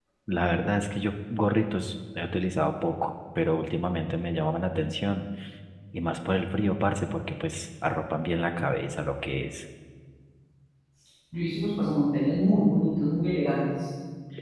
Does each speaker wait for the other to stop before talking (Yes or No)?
Yes